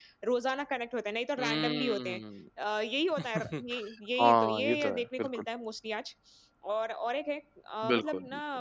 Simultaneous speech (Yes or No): Yes